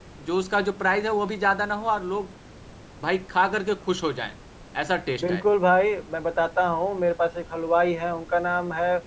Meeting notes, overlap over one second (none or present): none